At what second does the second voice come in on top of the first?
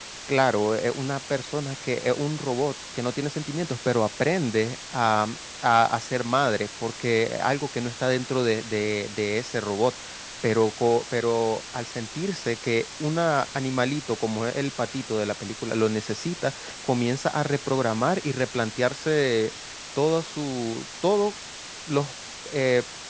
none

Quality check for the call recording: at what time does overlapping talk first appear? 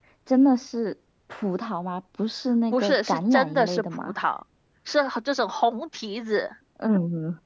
2.7 s

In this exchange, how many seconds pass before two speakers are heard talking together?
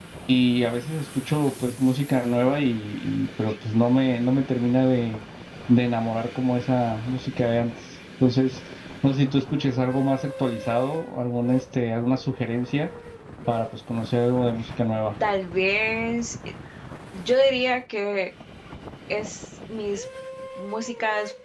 none

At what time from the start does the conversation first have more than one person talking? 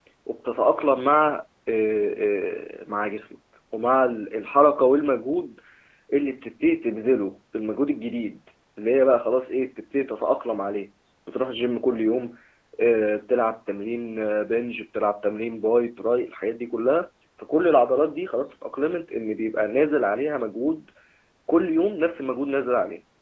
none

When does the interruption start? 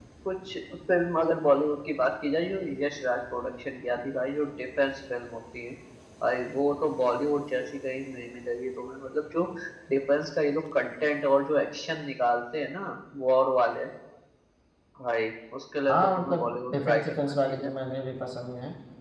15.9 s

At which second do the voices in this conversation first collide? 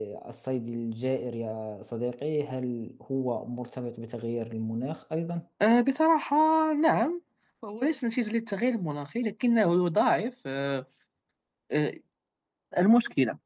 none

